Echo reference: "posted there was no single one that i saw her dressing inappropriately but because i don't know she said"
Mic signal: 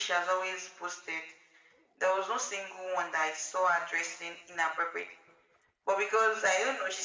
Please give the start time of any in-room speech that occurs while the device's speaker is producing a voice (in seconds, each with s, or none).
none